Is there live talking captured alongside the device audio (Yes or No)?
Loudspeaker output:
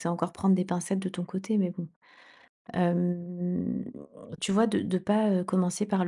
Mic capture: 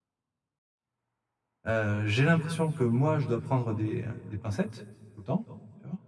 Yes